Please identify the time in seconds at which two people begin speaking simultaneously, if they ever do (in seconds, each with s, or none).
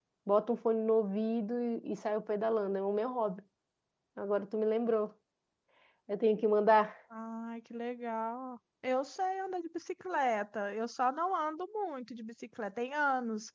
none